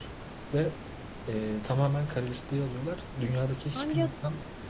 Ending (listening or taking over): listening